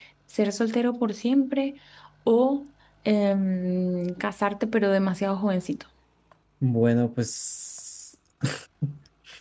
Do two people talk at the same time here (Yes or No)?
No